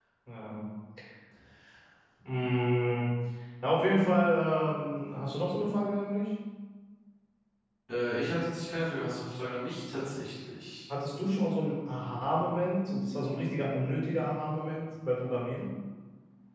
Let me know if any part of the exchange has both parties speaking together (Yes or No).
No